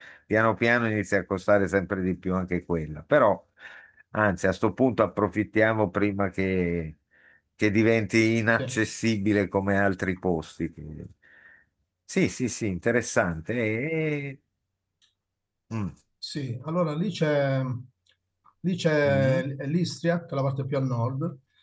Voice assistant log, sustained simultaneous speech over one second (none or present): none